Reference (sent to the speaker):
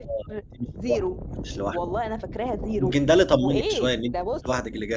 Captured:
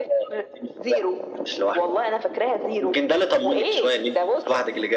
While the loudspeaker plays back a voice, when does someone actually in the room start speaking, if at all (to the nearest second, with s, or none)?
none